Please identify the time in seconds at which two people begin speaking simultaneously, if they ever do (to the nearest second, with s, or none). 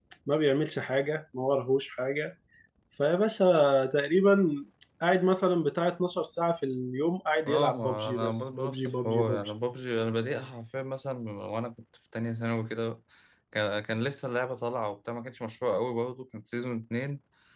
7 s